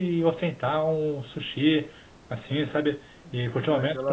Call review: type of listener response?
listening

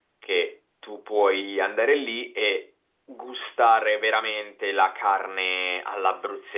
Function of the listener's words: taking over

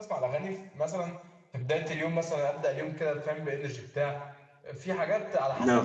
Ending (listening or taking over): listening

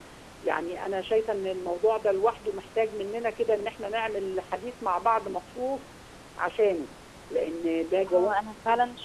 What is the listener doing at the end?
taking over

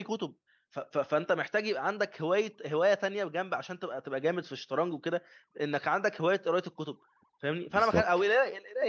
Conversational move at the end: listening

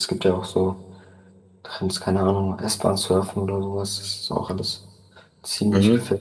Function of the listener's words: taking over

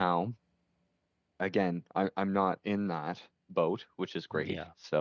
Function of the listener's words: listening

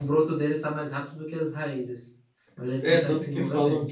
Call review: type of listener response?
taking over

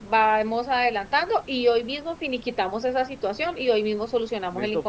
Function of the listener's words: taking over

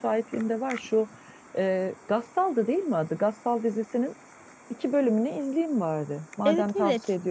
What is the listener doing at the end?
taking over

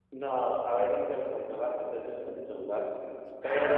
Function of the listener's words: listening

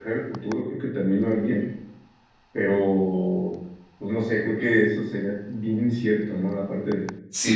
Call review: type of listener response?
taking over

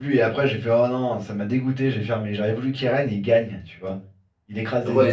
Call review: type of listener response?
taking over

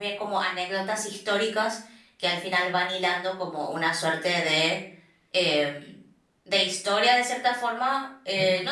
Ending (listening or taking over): listening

